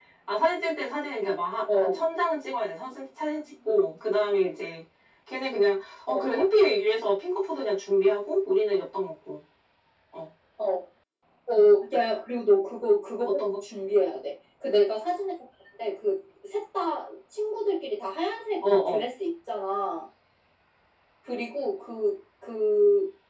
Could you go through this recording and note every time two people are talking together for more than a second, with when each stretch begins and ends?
none

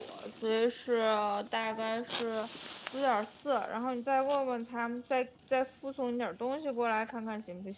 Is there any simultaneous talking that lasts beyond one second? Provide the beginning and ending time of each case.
none

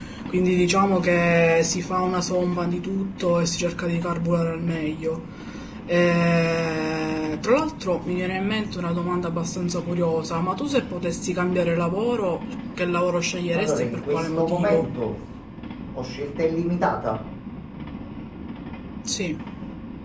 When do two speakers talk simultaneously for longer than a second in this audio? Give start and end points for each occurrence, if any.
13.5-15.0

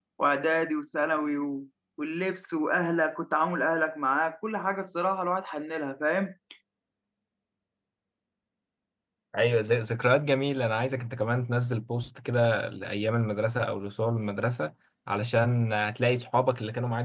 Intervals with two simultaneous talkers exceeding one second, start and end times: none

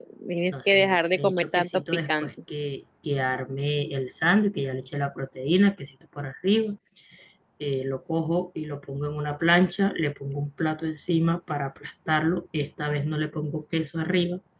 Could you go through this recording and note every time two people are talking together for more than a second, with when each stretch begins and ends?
0.5-2.3

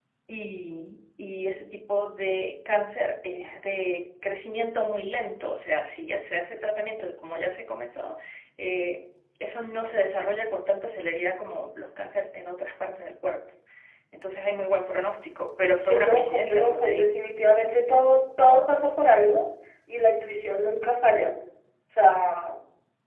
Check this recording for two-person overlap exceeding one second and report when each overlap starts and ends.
15.9-17.1

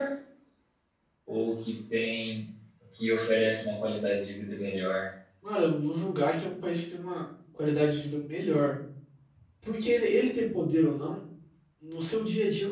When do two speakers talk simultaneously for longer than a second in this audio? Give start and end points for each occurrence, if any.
none

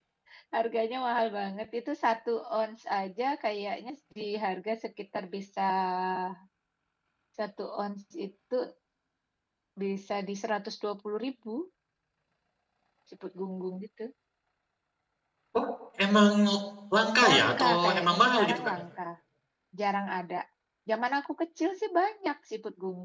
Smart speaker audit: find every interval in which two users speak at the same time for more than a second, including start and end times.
17.3-18.7

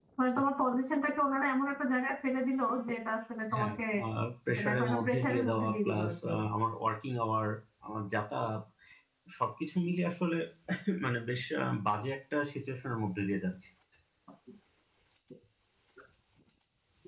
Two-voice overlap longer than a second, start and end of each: 4.6-6.1

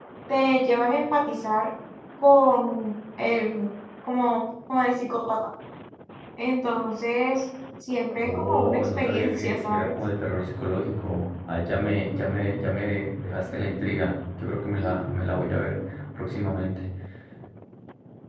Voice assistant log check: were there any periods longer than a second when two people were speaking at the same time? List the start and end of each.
8.2-10.0

